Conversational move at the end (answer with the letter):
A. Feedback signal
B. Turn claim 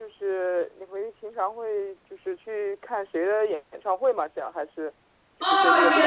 B